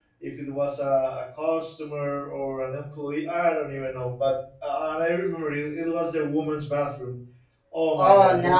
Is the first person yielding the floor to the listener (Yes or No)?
Yes